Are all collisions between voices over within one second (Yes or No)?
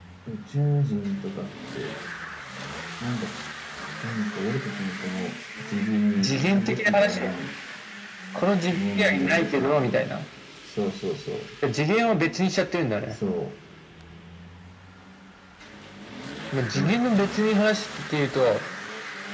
No